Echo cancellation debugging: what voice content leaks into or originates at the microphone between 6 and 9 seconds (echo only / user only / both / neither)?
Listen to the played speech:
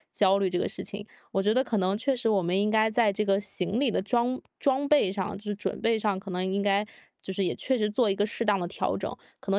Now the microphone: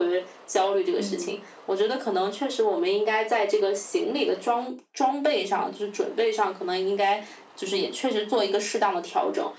echo only